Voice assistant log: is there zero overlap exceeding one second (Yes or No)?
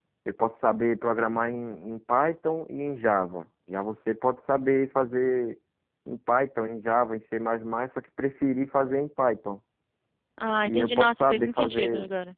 No